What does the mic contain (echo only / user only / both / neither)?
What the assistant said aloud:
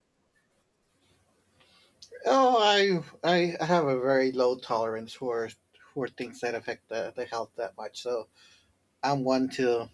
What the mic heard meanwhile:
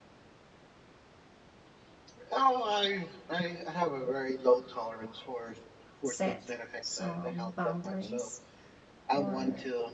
both